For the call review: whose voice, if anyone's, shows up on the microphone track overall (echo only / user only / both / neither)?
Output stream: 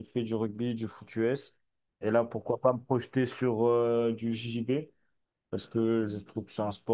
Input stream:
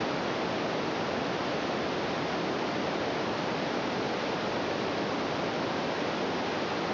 neither